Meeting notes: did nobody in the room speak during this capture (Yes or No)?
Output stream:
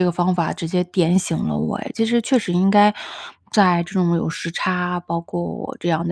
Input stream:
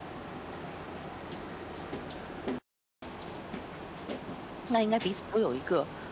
No